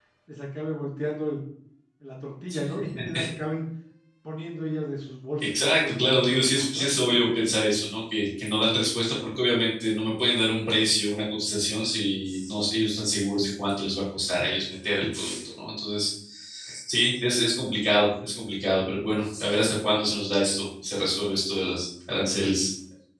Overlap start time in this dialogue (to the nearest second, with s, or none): 5 s